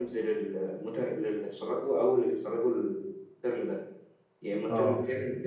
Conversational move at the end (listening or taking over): listening